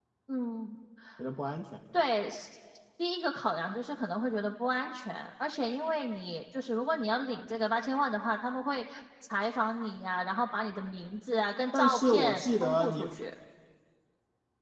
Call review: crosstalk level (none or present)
present